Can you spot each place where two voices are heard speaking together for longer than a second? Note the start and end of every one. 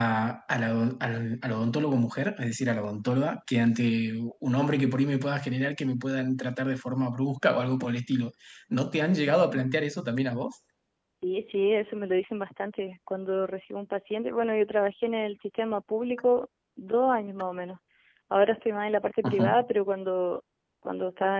none

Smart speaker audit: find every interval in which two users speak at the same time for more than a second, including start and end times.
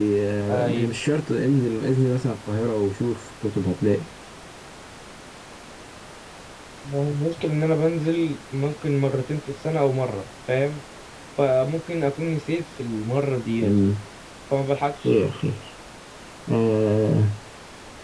none

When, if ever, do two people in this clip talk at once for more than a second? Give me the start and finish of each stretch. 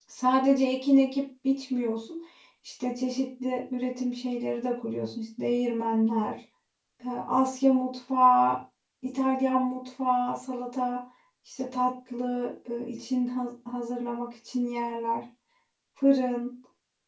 none

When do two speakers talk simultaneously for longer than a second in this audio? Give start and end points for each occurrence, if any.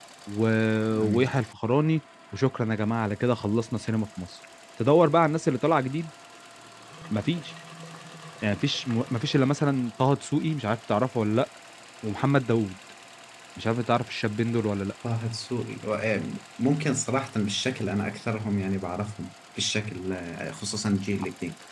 none

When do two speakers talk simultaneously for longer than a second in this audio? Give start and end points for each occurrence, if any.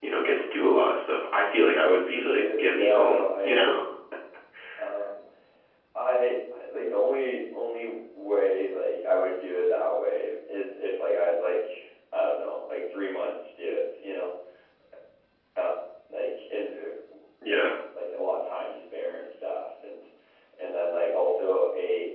2.1-3.6

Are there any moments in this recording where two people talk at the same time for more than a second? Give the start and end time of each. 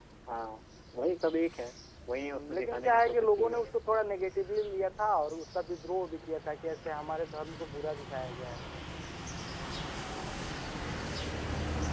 2.2-3.7

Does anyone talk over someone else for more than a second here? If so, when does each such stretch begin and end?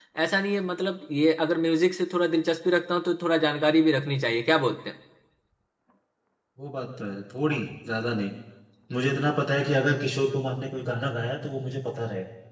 none

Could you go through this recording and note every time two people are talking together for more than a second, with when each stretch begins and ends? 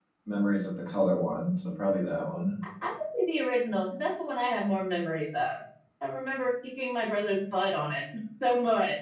none

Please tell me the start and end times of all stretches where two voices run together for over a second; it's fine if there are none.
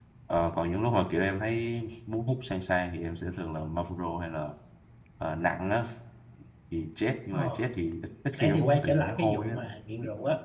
8.4-9.6

